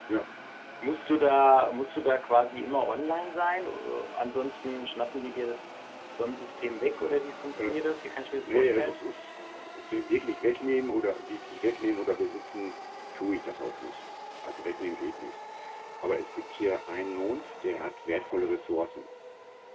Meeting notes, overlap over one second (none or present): none